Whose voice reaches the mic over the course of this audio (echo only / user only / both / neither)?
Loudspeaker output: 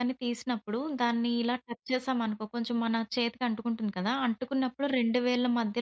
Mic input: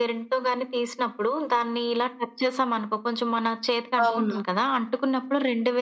both